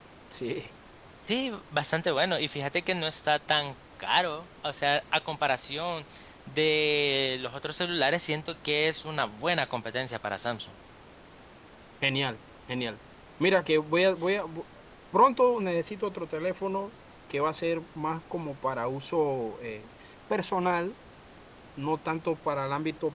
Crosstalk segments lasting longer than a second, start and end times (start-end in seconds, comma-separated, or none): none